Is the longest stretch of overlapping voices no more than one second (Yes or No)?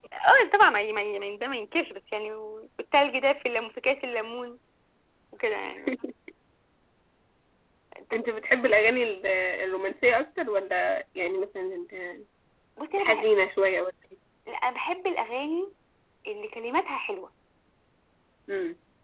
Yes